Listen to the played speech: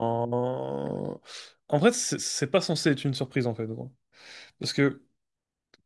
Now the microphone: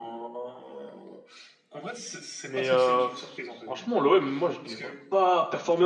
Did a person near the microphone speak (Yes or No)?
Yes